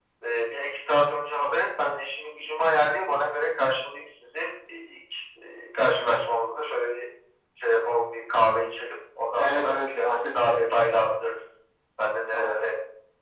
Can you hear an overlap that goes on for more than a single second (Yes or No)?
Yes